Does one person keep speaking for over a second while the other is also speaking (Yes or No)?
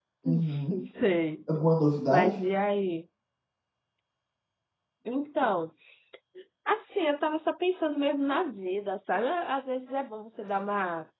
No